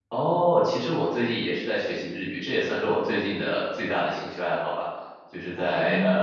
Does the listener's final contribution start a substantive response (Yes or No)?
No